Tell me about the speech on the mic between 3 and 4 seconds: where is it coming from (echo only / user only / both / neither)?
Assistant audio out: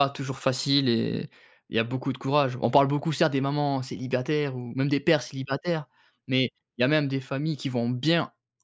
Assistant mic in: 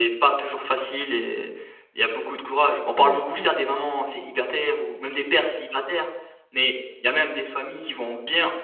both